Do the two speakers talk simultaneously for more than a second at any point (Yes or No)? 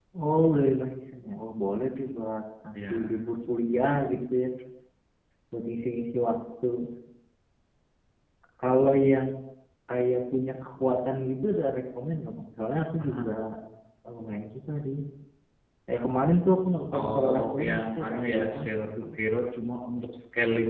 Yes